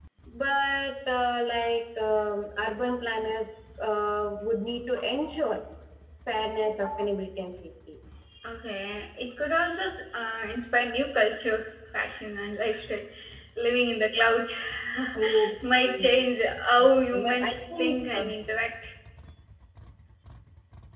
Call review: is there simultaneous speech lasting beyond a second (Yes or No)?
Yes